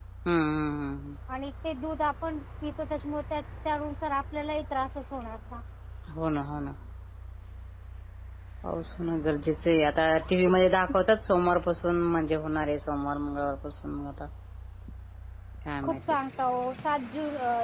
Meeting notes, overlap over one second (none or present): none